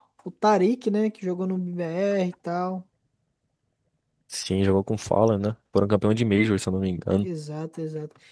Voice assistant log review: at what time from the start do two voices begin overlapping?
none

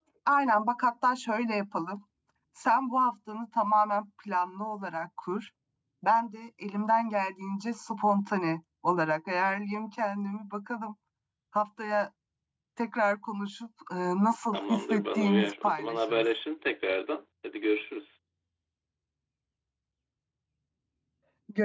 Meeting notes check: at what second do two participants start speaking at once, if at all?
14.5 s

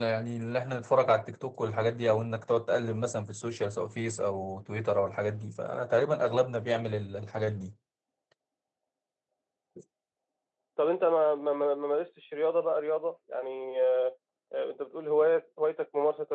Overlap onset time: none

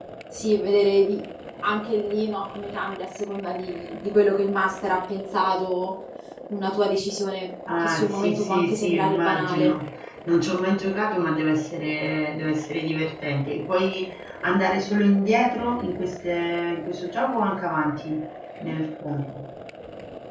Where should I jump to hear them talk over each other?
7.7 s

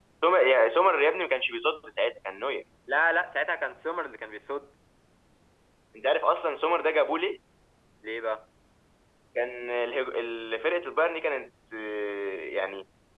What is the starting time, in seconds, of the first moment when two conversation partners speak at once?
none

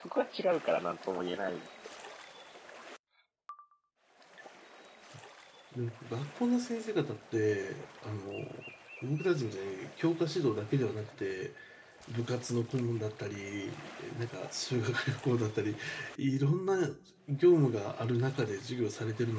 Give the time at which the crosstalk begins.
none

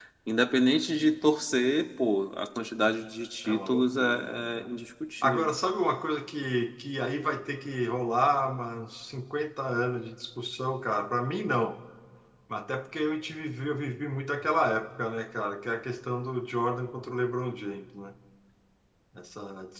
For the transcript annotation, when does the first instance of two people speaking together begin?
3.4 s

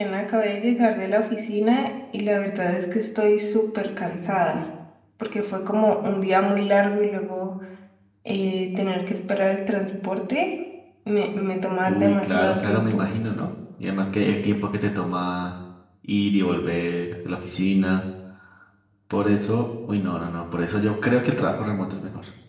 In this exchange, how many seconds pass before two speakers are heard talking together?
11.8 s

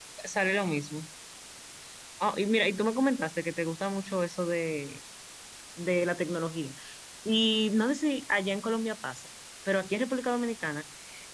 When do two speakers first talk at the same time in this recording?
none

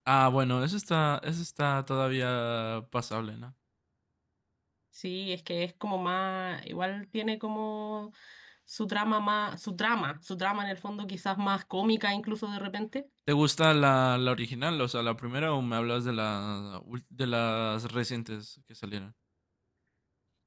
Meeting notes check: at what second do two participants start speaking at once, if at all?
none

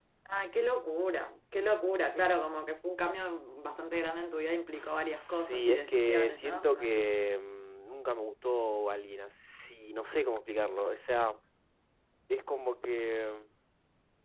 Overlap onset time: 4.7 s

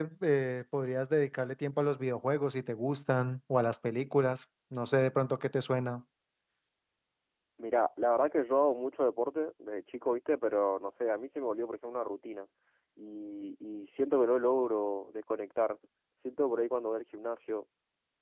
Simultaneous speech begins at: none

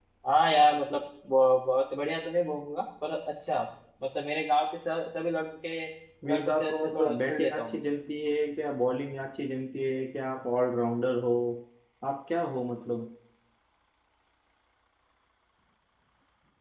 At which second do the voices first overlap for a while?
6.3 s

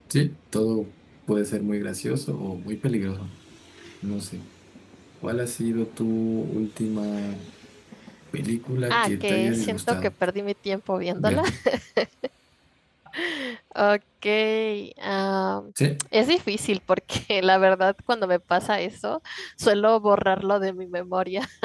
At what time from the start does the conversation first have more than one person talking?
8.9 s

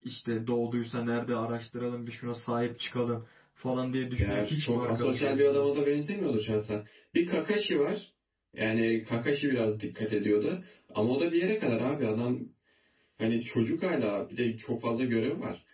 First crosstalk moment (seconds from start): 4.2 s

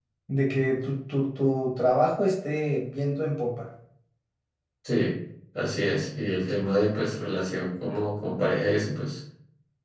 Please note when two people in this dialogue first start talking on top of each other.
none

